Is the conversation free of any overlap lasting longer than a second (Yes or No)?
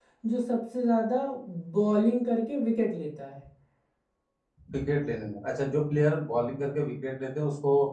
Yes